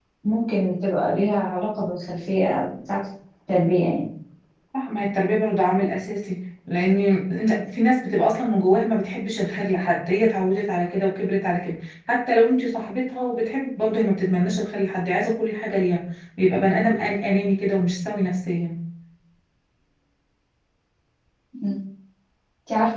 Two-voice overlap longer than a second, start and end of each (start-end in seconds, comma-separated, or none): none